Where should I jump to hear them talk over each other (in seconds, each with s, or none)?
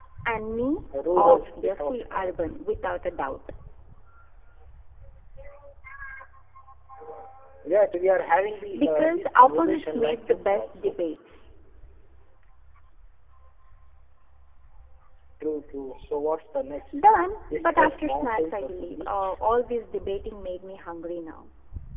1.1 s